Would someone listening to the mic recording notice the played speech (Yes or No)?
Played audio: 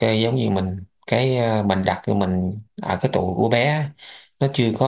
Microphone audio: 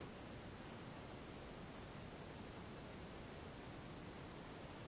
No